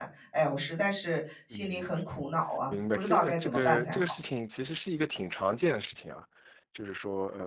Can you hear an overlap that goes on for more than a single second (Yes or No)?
Yes